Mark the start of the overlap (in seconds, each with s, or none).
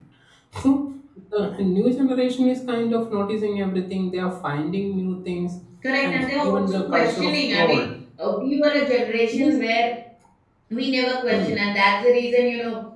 6.0 s